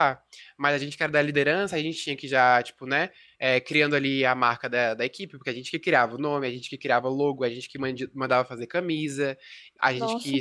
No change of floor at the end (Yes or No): Yes